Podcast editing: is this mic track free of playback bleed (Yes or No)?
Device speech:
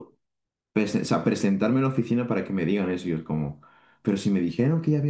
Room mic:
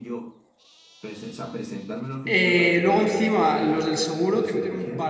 No